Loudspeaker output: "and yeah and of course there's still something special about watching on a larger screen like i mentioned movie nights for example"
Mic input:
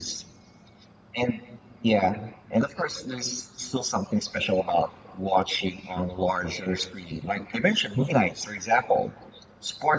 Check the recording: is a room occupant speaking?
No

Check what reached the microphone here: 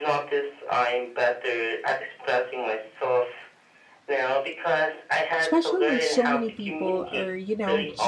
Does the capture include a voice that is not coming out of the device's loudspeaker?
Yes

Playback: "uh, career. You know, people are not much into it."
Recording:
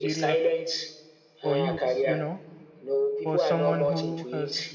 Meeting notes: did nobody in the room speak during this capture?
No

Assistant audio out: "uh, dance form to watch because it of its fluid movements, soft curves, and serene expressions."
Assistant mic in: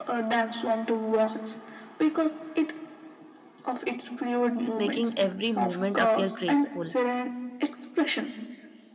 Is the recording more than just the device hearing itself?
Yes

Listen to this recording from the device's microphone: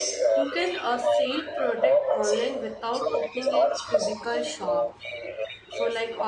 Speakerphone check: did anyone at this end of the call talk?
Yes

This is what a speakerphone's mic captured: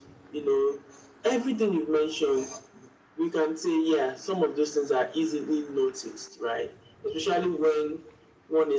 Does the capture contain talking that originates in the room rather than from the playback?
No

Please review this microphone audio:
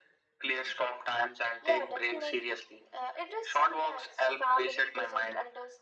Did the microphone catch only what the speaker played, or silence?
Yes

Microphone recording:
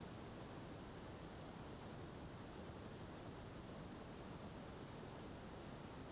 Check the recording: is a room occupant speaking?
No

